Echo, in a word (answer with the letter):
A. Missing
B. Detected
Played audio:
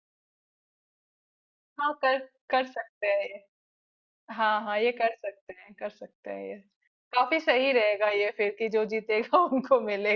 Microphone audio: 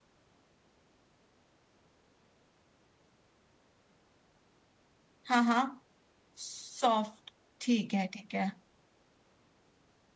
A